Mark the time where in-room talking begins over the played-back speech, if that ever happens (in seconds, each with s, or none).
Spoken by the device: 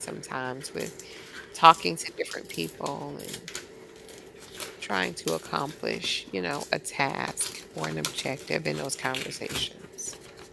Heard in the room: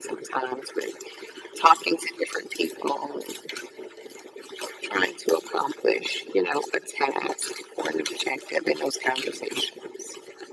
none